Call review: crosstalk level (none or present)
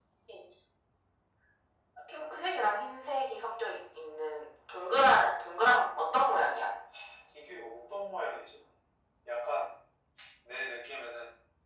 none